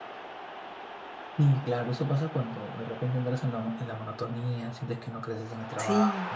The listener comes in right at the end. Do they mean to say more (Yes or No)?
Yes